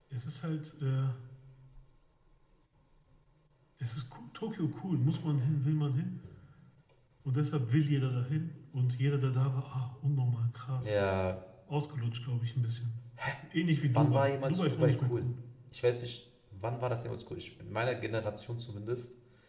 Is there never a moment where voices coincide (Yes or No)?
No